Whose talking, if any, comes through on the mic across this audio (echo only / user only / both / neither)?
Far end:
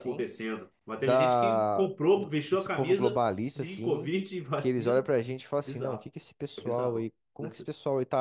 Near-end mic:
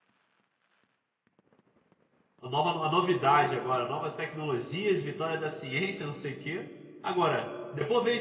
user only